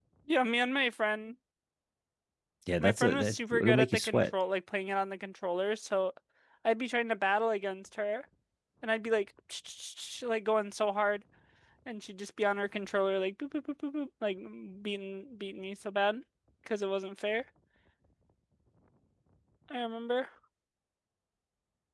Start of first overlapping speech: 2.8 s

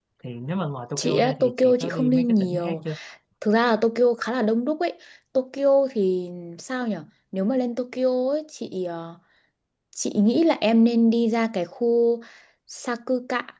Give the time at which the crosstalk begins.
1.0 s

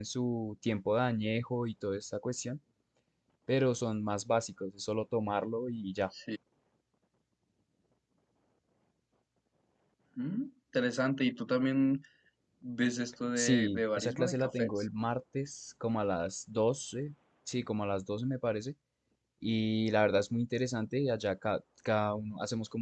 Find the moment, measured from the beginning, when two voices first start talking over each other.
13.4 s

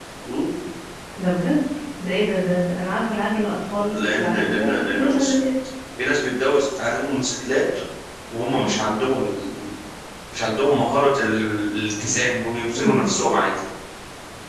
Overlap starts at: 4.0 s

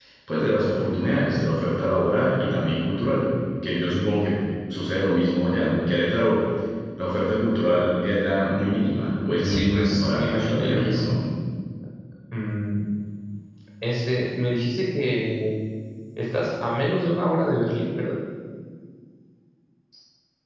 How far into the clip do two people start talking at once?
9.4 s

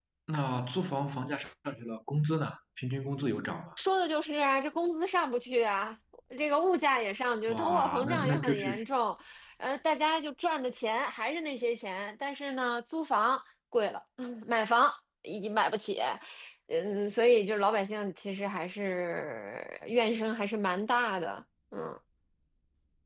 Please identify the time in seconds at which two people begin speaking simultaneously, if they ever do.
7.5 s

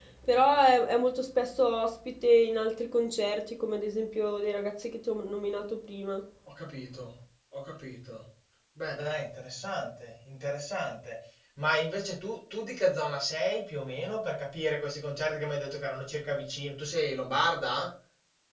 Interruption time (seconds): none

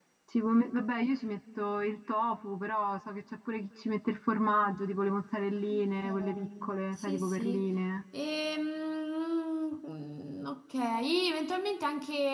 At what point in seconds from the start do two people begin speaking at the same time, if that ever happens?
5.7 s

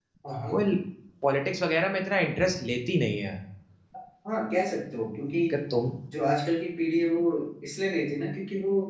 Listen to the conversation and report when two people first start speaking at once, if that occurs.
none

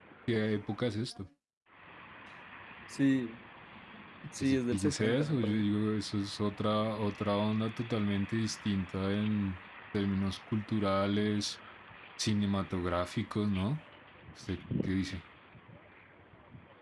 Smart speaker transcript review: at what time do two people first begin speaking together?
4.4 s

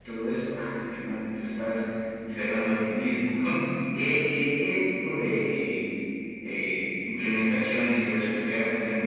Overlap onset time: none

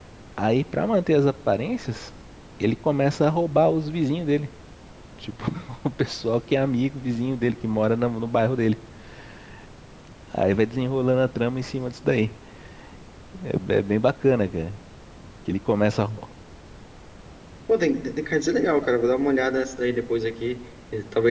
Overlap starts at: none

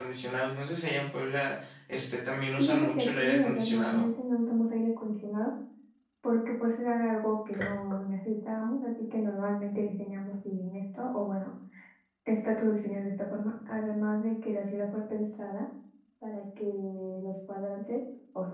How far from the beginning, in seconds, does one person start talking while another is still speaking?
2.6 s

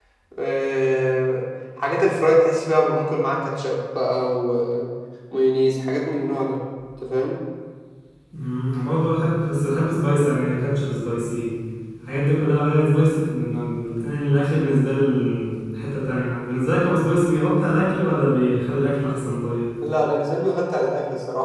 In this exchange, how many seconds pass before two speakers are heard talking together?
none

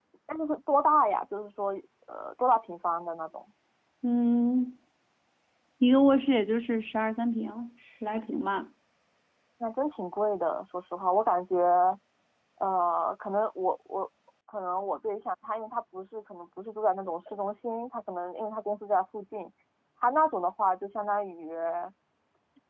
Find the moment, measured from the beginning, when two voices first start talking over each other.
none

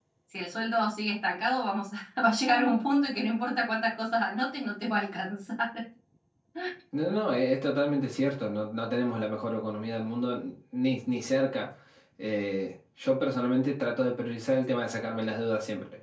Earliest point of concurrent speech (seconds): none

